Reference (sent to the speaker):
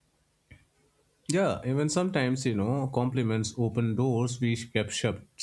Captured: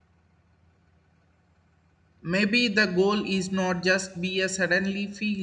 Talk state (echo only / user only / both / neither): user only